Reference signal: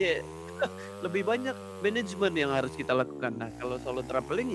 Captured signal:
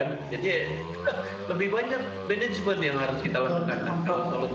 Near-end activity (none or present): present